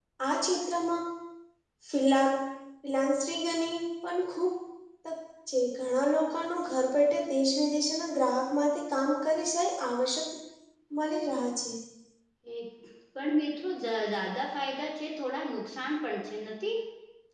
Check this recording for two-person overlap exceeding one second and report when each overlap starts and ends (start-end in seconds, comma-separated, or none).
none